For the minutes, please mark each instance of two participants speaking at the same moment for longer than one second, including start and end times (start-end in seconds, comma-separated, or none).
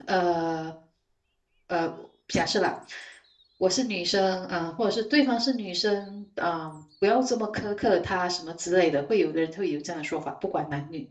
none